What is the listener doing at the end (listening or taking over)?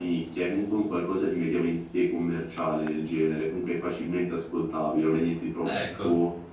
listening